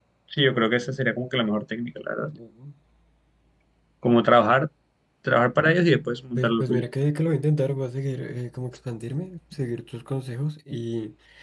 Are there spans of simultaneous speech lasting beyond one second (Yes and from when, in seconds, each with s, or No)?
No